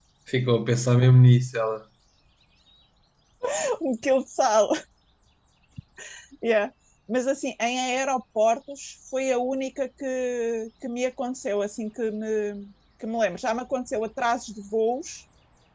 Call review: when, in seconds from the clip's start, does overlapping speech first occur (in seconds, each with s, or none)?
none